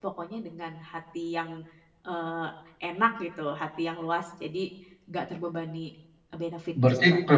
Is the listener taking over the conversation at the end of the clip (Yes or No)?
Yes